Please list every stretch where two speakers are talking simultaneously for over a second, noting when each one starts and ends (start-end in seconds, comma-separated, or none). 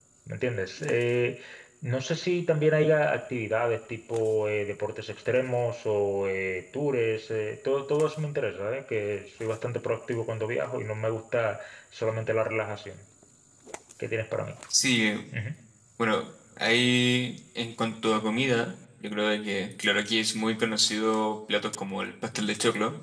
none